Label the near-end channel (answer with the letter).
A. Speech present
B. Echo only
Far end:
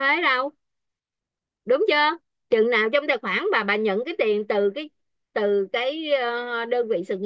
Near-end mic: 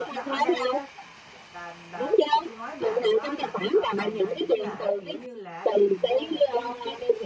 A